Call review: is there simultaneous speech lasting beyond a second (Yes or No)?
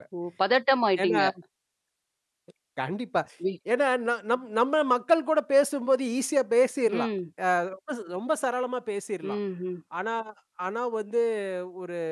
No